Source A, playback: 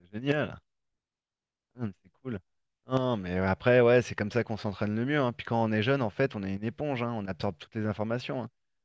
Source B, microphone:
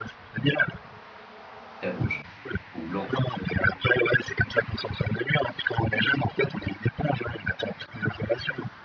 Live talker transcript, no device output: Très rouge. Ou blanc.

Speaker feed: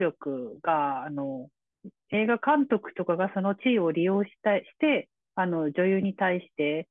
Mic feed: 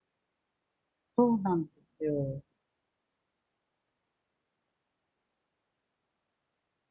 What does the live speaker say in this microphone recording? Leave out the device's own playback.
そうなんですよ。

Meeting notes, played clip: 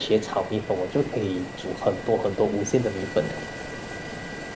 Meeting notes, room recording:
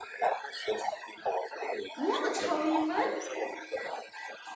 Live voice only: 我的炒米粉，

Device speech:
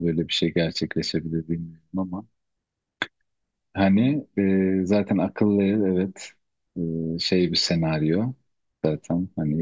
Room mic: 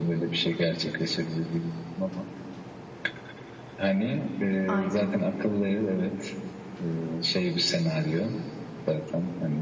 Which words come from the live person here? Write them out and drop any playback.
Aynen.

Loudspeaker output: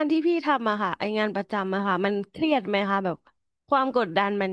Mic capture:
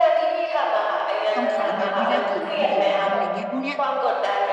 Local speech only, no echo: ต้องขายงานให้ได้กี่ล้านกี่ล้านอะไรเงี้ยพวกเนี้ย

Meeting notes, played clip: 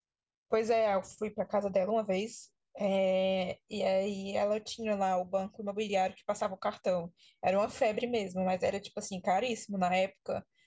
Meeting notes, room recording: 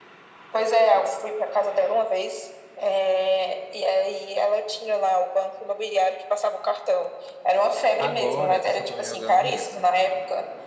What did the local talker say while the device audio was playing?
Agora eu só tô jogando esse.

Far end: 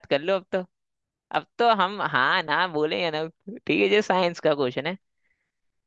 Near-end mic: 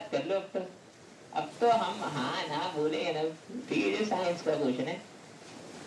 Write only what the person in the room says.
none

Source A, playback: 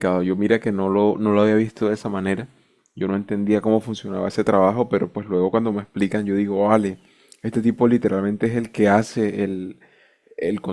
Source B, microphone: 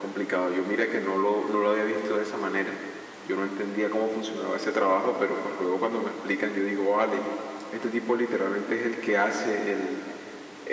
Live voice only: none

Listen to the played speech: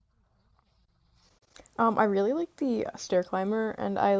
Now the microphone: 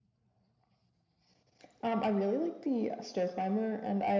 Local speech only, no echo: none

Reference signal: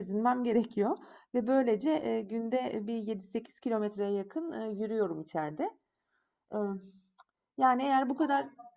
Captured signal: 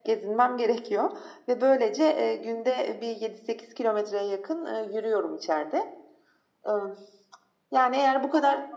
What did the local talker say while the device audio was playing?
none

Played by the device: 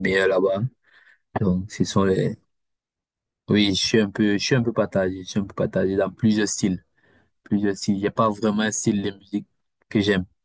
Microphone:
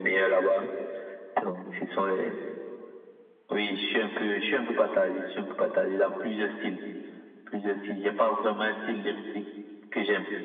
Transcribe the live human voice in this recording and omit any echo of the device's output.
none

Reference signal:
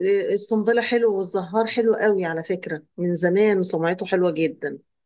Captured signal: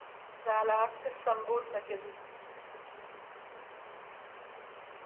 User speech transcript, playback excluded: ده على عكس السمبوسه كده

